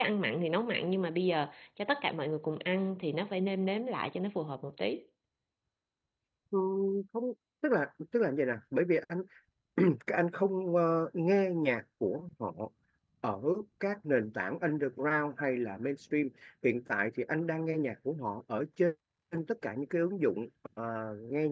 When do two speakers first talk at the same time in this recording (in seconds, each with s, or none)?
none